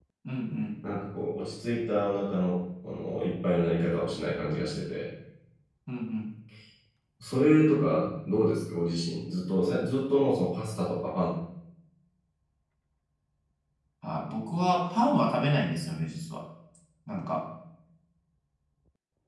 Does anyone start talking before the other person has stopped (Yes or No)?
No